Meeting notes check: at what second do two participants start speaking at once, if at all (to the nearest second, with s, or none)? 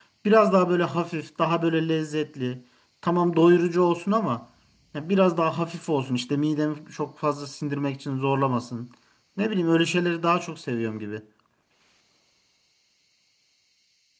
none